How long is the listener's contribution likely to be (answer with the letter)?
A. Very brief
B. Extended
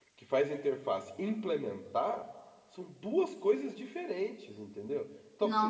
A